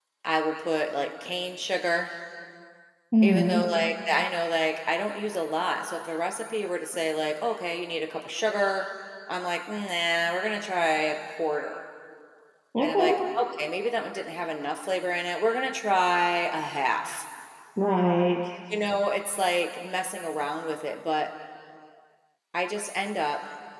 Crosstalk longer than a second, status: none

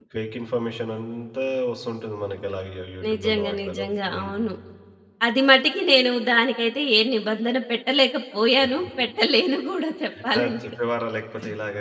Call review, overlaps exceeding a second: present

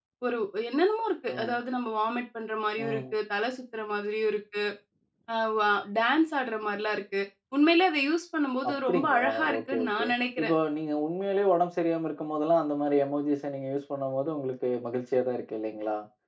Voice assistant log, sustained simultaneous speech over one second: present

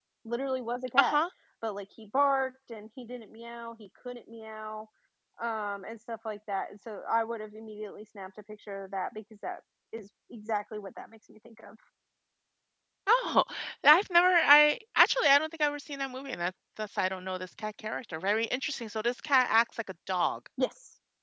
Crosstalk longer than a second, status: none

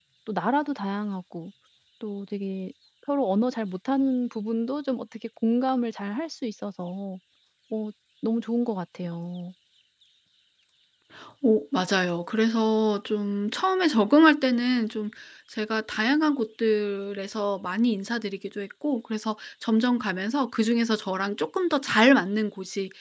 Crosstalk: none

